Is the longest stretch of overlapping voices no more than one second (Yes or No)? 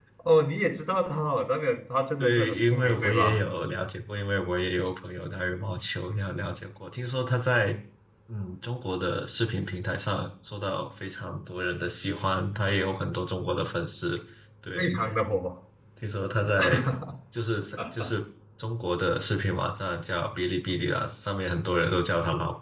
No